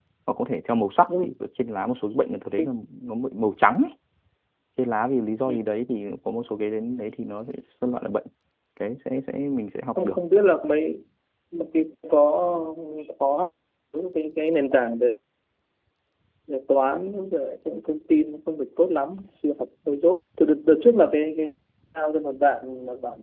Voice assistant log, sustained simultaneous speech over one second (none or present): none